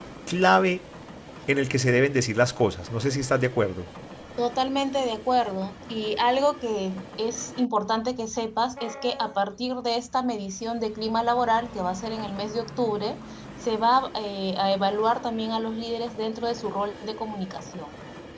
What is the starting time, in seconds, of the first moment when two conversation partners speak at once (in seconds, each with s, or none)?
none